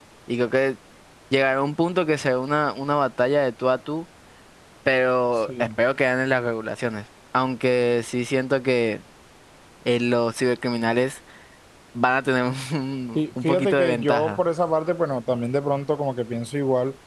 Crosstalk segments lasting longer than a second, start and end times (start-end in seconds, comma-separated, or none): 13.2-14.4